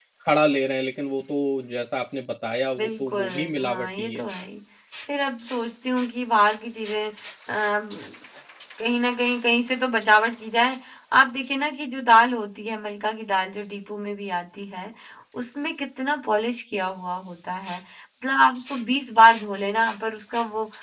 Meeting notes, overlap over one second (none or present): present